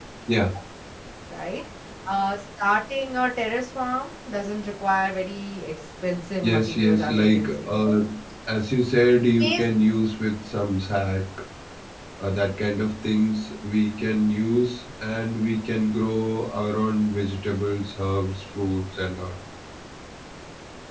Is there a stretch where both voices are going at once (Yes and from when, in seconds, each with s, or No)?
Yes, from 6.4 s